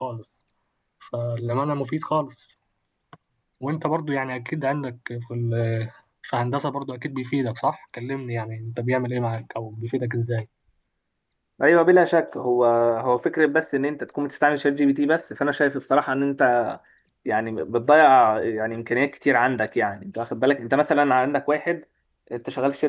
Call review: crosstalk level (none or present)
none